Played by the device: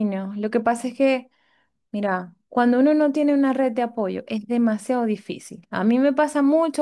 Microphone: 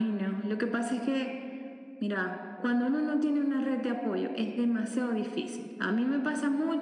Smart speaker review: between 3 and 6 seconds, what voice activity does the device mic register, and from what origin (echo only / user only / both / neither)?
echo only